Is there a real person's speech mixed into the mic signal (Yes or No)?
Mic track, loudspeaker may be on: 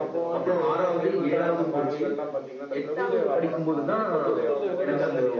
Yes